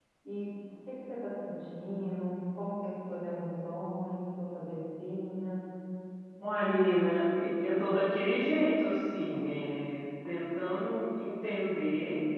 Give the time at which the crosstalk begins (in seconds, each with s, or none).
none